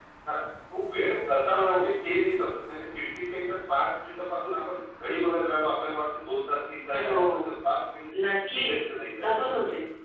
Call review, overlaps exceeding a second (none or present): none